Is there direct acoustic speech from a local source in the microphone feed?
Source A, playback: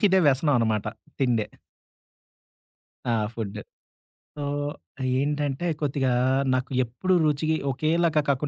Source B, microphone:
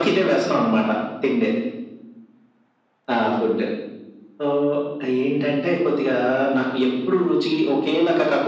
No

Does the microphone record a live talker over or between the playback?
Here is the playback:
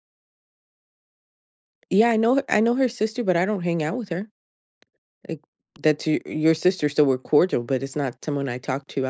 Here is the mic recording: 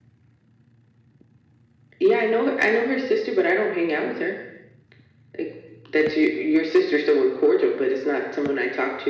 No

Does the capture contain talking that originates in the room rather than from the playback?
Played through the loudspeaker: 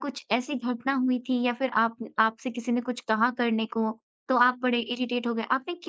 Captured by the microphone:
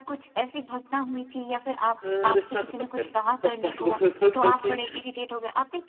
Yes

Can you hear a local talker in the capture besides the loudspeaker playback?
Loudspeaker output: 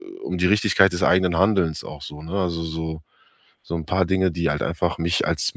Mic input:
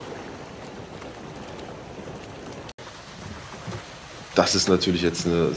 Yes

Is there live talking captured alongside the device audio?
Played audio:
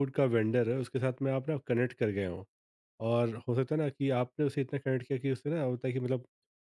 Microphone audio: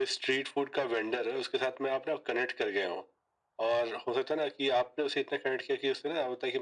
No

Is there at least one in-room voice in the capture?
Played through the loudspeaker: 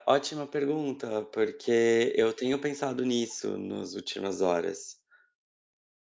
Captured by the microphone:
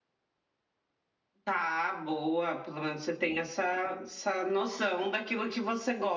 Yes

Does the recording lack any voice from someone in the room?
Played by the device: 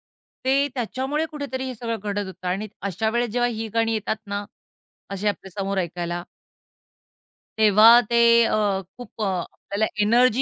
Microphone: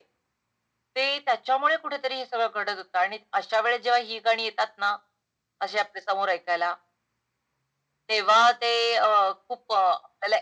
Yes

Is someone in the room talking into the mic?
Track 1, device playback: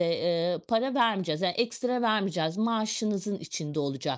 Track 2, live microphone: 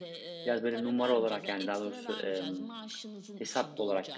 Yes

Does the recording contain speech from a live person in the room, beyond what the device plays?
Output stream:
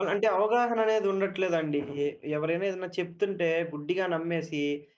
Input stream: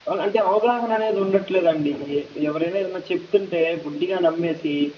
No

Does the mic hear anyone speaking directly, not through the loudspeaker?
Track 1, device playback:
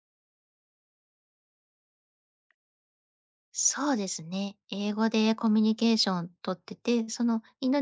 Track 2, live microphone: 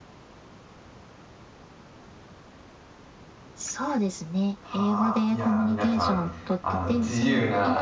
Yes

